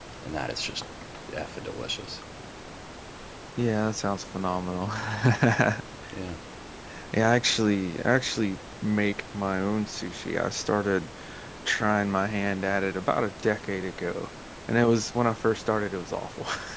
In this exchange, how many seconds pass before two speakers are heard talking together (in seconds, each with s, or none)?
none